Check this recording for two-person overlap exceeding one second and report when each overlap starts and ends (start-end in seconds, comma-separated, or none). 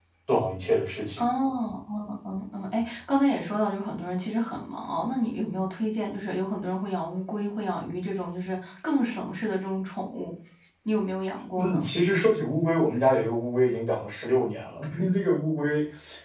none